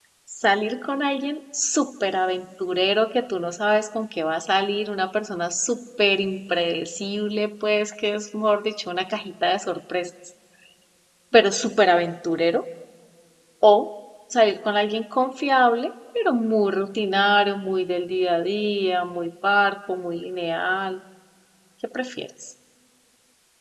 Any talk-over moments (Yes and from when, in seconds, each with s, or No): No